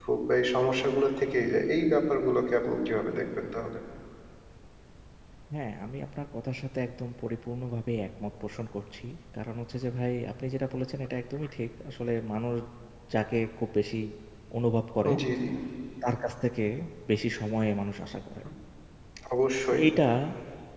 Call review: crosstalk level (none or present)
none